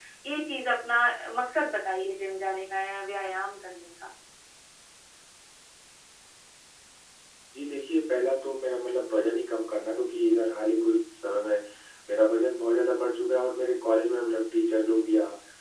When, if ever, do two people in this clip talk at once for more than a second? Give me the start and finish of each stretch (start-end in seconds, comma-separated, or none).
none